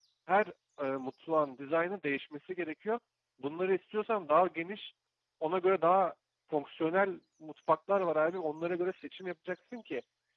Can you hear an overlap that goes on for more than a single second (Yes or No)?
No